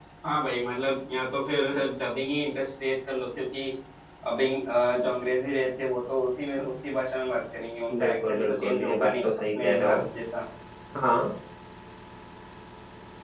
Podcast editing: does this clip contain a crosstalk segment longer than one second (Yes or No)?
Yes